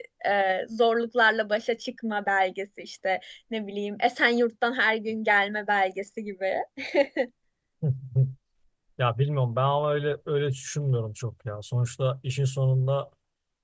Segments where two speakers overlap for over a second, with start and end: none

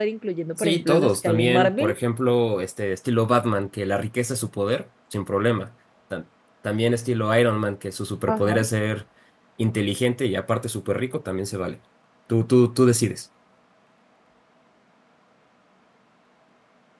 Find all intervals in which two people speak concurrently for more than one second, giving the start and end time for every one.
0.6-1.9

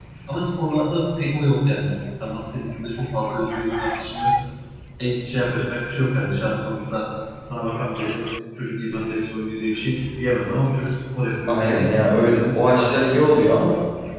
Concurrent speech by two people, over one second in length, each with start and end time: 11.5-13.6

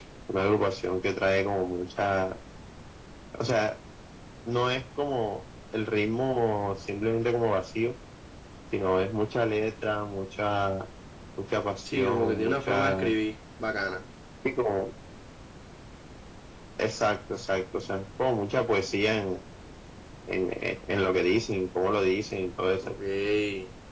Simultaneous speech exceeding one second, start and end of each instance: 11.9-13.1

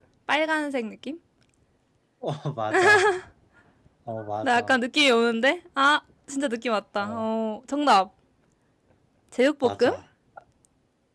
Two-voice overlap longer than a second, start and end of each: none

